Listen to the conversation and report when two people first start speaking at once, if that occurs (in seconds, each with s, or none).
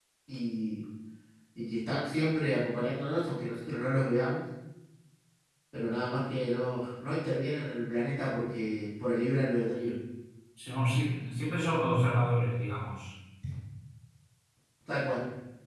none